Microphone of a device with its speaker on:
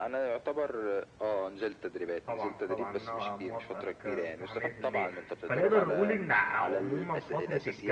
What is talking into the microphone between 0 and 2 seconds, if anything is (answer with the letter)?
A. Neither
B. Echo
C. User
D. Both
B